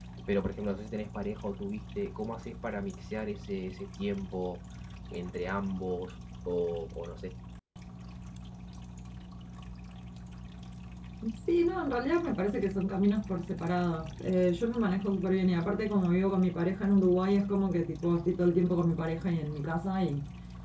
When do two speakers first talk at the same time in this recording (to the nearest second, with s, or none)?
none